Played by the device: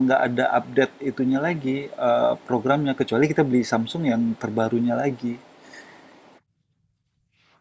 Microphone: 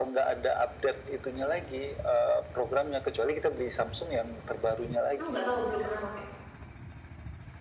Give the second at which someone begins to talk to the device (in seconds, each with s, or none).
5.2 s